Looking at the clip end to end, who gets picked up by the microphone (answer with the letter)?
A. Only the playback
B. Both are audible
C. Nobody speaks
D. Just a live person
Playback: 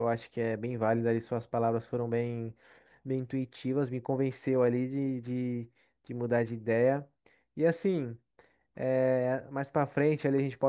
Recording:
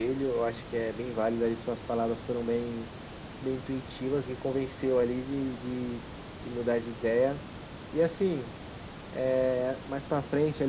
A